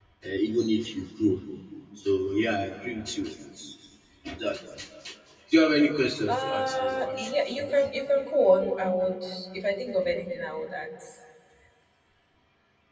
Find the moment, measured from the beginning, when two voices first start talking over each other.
6 s

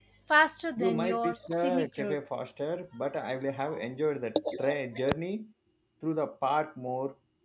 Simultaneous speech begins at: 1 s

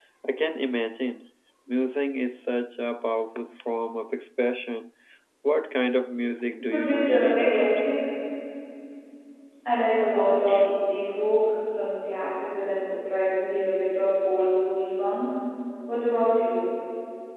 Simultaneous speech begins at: 7 s

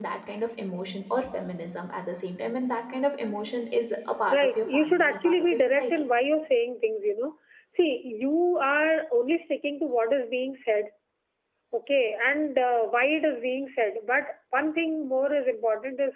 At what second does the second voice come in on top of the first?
4 s

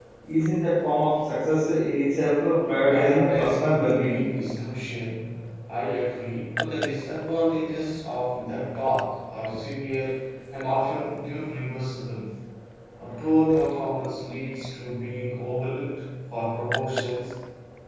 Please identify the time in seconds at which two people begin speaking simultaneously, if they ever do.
3 s

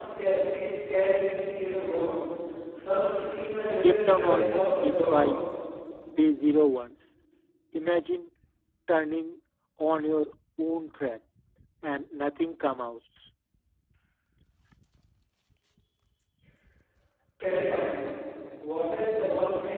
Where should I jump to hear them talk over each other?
4 s

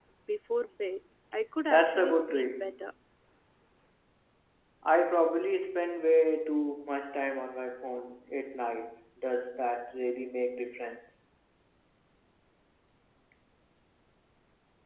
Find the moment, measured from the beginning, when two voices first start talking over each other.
2 s

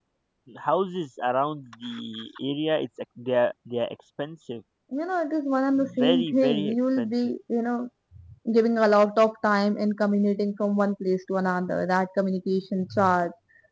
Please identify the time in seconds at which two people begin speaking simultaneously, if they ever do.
6 s

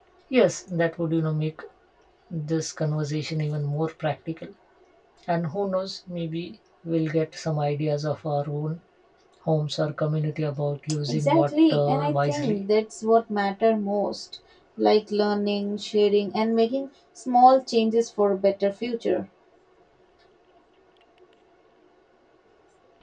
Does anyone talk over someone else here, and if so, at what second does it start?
11 s

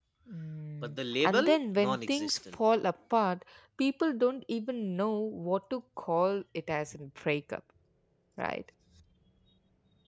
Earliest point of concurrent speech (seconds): 1 s

